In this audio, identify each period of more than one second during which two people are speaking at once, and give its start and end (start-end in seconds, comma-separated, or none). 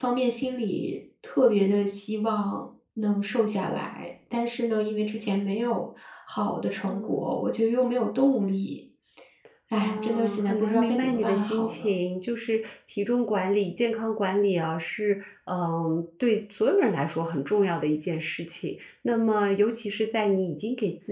9.7-11.9